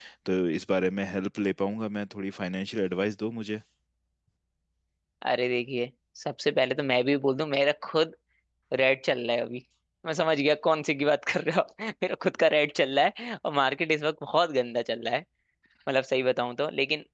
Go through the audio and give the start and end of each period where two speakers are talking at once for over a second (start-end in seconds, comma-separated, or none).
none